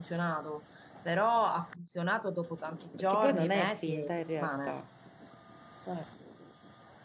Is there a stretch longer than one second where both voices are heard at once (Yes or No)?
Yes